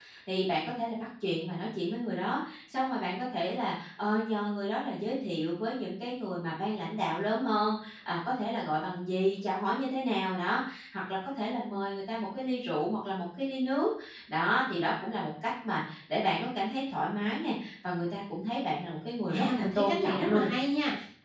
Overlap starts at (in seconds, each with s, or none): 19.3 s